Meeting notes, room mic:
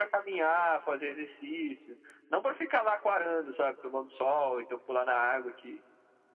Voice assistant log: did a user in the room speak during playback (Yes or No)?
No